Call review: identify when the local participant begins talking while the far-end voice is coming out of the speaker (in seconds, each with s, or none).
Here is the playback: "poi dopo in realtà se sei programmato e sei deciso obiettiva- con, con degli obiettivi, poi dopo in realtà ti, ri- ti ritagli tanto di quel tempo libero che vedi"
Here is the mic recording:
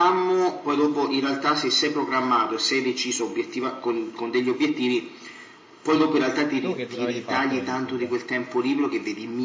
6.6 s